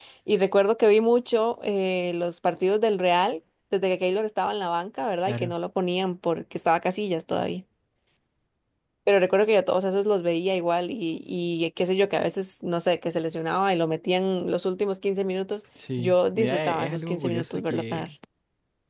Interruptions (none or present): present